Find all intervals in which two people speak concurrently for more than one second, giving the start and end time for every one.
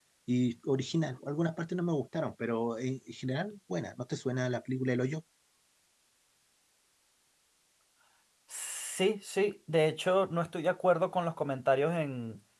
none

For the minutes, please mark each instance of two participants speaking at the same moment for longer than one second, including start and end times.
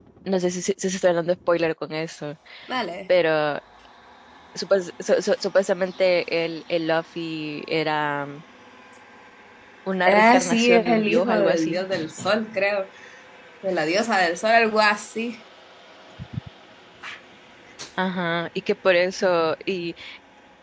10.1-11.8

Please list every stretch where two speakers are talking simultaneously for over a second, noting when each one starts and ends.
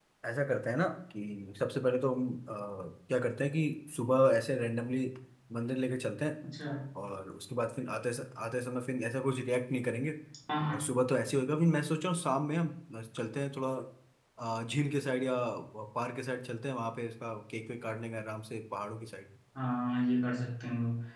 none

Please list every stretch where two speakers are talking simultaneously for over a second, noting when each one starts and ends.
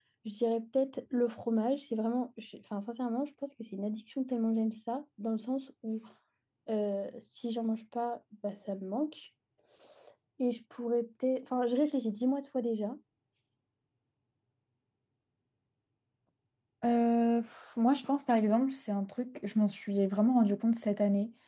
none

